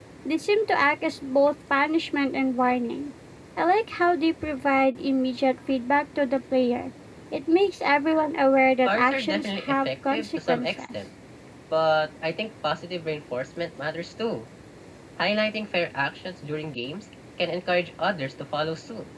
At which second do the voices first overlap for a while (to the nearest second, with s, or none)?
9 s